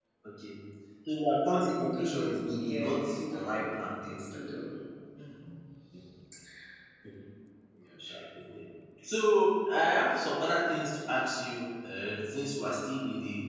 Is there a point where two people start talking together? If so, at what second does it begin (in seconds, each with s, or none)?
1.7 s